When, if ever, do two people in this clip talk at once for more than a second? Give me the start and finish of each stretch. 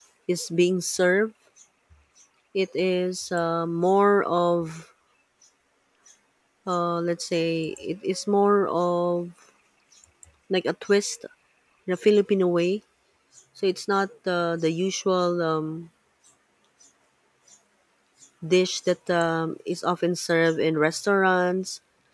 none

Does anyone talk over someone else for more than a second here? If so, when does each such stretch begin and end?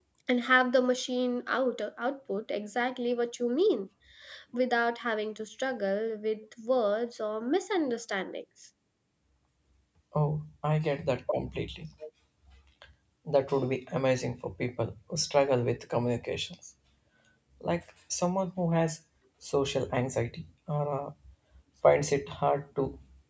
none

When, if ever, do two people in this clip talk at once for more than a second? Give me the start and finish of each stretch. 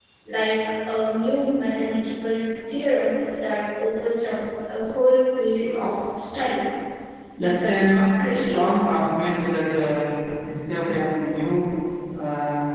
7.4-8.6

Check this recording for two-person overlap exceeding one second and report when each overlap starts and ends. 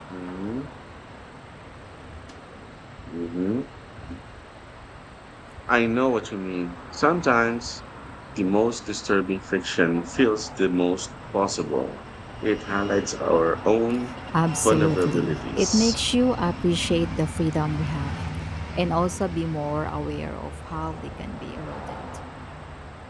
14.6-16.0

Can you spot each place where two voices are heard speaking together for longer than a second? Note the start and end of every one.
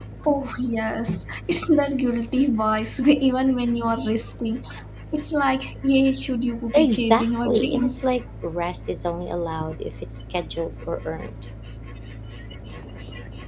6.7-8.0

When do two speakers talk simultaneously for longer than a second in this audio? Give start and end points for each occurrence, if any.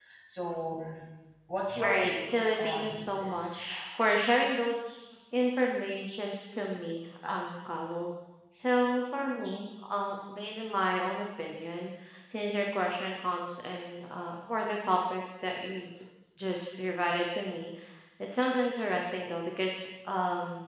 1.8-3.6

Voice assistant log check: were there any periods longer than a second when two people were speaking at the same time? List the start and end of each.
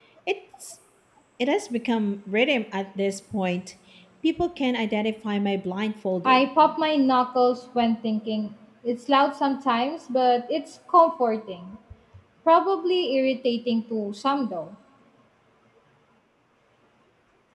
none

